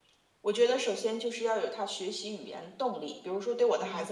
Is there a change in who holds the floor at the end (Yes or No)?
No